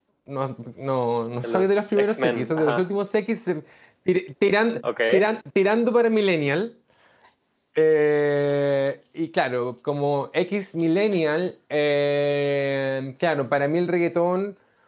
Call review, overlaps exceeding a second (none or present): present